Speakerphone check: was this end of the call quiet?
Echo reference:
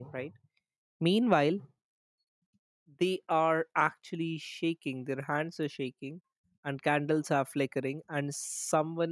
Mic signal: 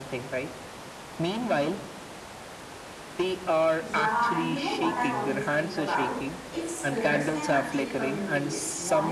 No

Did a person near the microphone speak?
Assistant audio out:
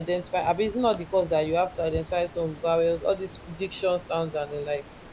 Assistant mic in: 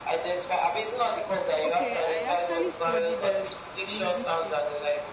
Yes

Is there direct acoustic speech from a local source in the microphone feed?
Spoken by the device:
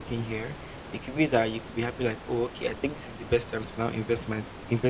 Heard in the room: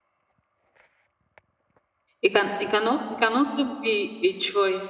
Yes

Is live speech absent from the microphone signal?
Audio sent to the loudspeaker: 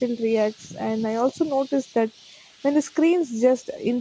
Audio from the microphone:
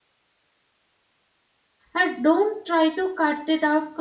No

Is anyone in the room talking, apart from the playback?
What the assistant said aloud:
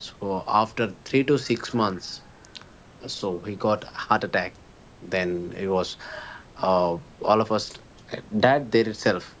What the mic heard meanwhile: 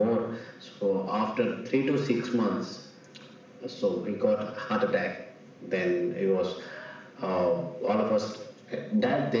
No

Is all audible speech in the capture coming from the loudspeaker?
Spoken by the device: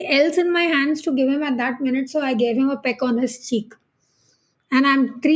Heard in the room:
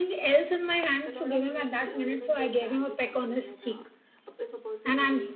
No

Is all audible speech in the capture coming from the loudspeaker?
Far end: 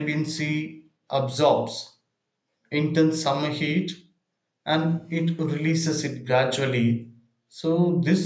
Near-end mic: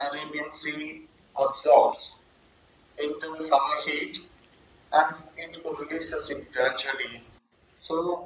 Yes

